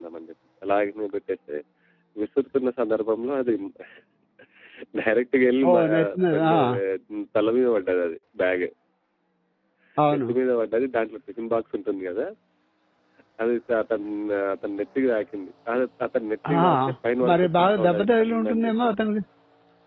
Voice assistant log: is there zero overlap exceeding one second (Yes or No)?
No